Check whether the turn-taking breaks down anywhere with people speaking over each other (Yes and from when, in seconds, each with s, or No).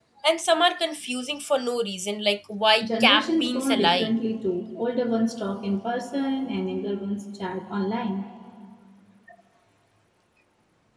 Yes, from 2.8 s